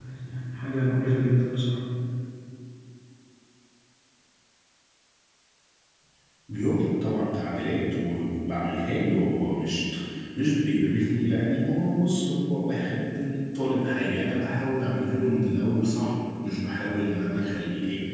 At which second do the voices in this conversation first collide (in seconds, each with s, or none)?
none